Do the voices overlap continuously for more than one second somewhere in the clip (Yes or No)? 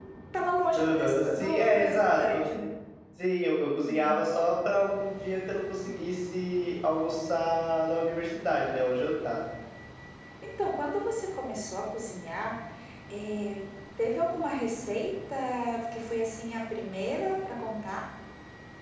Yes